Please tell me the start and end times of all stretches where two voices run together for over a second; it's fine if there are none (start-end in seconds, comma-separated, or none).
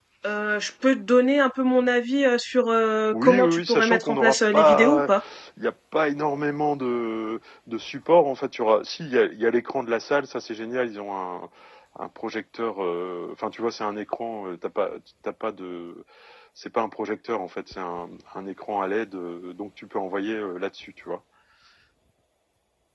3.1-5.1